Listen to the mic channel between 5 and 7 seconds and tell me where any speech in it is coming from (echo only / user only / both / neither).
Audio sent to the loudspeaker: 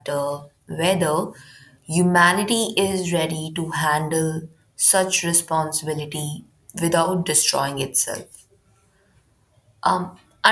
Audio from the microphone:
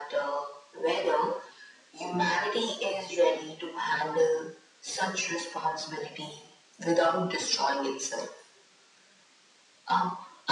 echo only